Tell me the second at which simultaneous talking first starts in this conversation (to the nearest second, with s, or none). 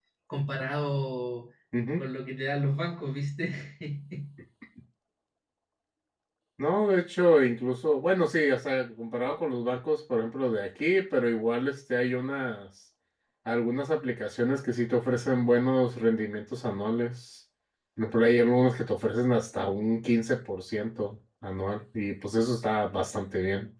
none